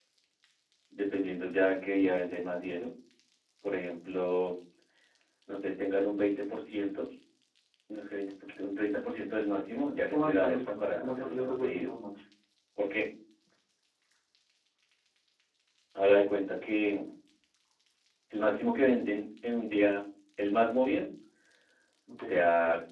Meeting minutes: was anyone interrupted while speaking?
Yes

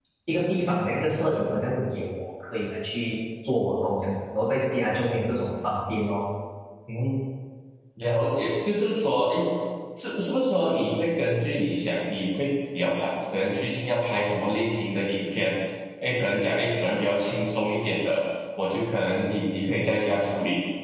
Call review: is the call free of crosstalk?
Yes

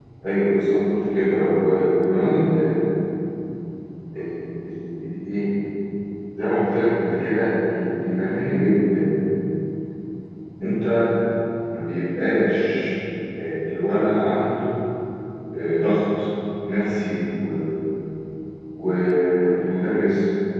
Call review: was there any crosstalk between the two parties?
No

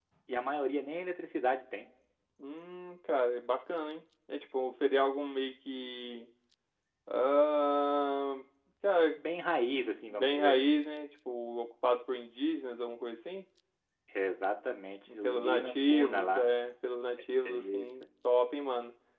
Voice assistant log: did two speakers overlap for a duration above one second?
Yes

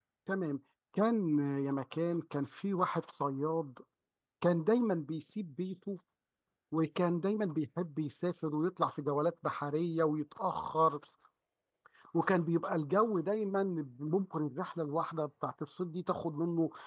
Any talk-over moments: No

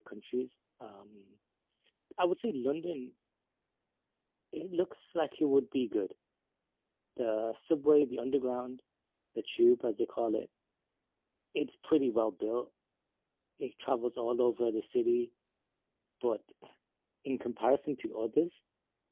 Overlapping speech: No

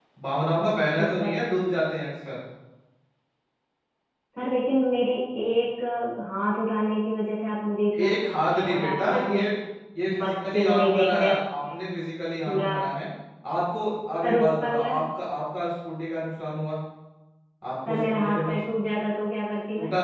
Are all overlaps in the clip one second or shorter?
No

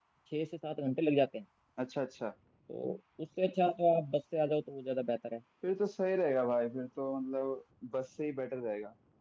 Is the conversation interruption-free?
Yes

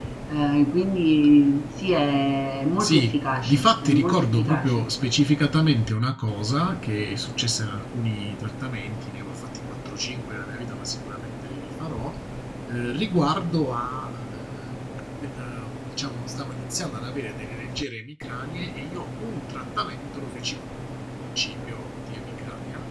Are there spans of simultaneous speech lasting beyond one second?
Yes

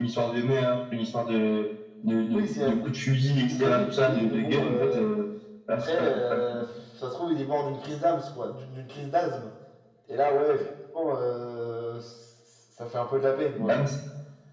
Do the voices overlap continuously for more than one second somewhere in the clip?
Yes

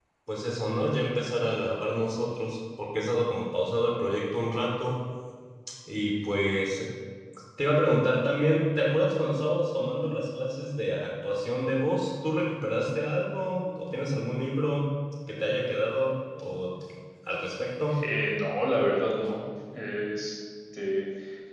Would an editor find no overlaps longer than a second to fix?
Yes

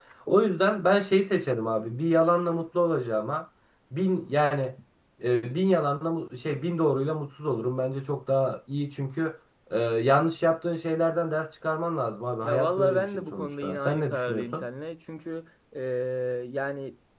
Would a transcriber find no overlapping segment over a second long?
No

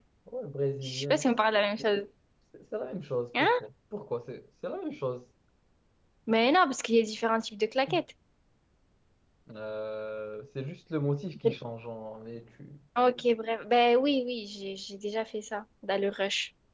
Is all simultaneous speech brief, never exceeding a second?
Yes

